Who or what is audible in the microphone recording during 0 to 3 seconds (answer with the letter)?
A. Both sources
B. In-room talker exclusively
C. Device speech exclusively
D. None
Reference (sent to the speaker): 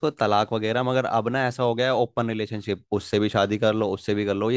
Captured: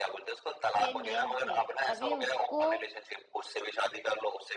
A